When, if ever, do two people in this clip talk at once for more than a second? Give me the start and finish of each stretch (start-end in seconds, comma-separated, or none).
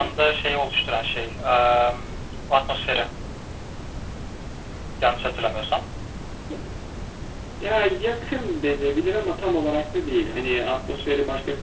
none